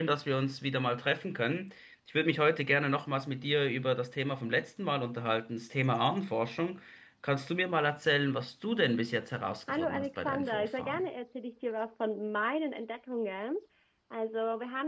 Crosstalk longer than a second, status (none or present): present